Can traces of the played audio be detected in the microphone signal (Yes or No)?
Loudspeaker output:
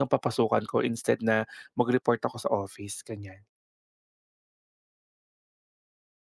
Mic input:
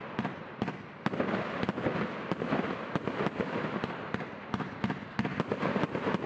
No